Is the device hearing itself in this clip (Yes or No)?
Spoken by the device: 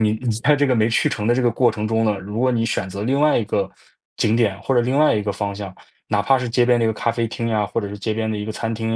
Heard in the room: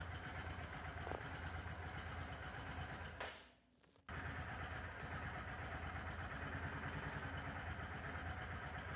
No